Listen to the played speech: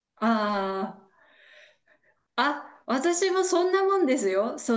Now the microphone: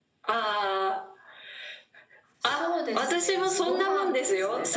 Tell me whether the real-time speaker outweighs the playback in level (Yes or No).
No